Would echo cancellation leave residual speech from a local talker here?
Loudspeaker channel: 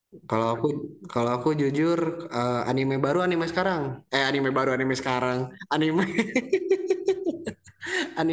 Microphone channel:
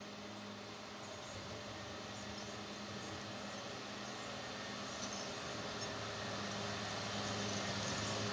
No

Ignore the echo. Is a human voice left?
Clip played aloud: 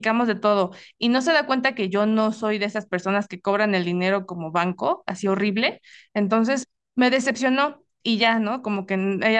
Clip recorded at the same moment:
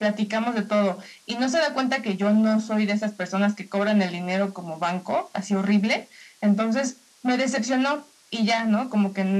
No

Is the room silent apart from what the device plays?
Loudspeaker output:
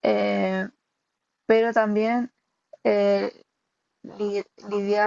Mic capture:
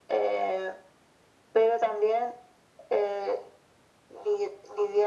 Yes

